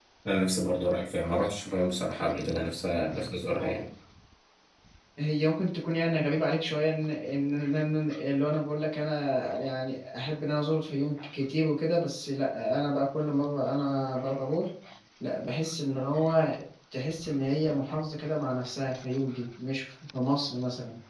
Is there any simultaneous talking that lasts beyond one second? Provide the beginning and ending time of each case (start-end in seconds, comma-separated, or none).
none